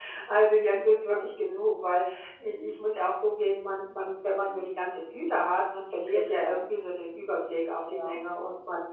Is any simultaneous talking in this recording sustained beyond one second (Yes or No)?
No